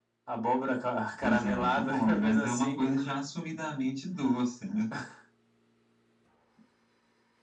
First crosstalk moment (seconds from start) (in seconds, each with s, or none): 1.2 s